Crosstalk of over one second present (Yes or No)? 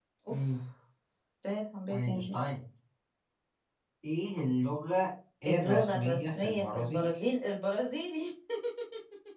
Yes